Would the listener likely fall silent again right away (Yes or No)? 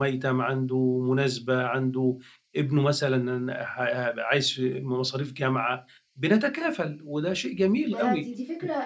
No